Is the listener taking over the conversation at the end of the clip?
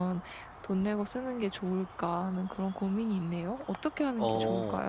Yes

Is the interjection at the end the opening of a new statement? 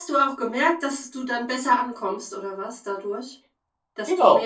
Yes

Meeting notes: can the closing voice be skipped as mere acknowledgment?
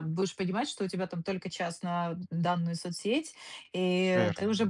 Yes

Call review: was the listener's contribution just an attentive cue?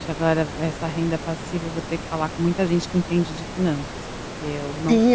No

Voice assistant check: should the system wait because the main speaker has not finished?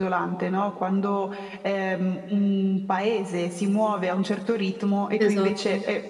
Yes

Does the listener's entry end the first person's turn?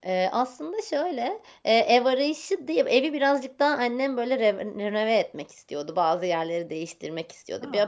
No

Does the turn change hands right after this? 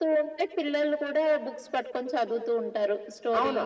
Yes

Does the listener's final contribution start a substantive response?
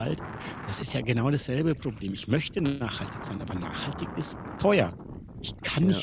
No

